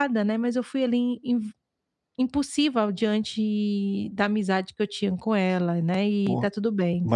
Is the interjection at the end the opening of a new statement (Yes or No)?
Yes